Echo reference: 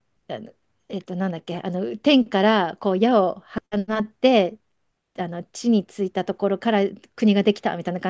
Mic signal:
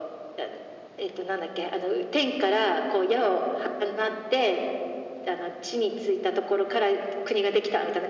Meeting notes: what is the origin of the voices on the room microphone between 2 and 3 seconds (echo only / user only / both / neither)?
echo only